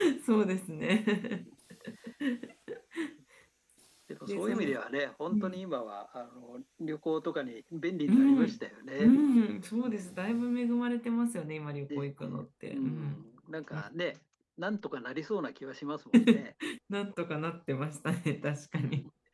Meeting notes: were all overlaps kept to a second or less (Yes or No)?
Yes